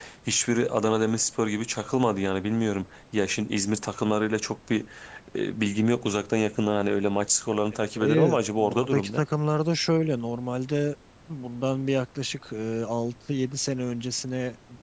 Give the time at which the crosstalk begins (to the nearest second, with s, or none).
8 s